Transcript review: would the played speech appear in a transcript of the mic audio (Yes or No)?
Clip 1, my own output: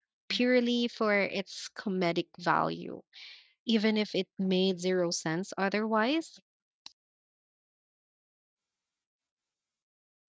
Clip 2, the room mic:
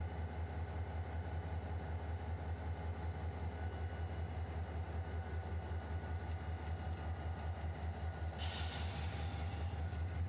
No